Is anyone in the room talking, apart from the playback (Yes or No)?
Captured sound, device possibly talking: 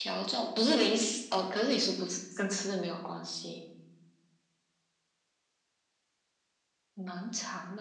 No